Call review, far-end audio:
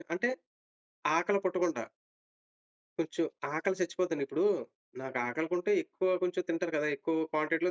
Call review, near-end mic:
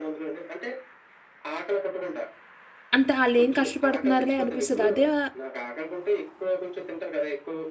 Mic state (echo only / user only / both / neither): both